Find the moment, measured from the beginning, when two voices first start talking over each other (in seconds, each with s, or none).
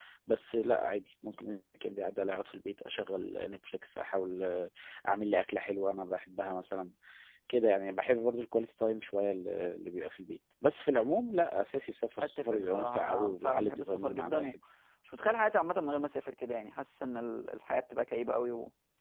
12.2 s